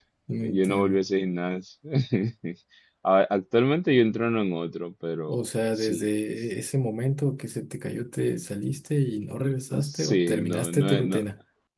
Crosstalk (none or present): present